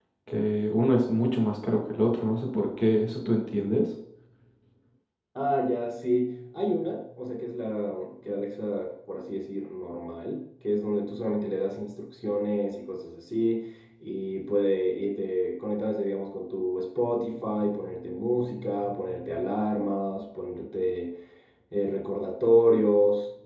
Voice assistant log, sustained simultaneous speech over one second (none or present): none